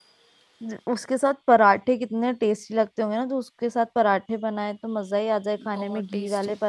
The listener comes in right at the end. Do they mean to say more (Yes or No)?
No